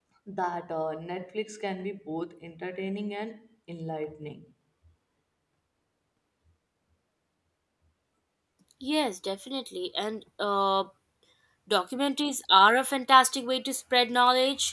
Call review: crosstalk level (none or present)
none